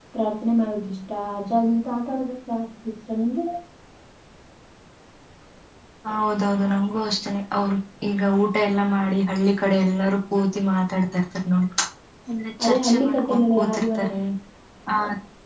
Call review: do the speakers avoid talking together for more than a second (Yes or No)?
No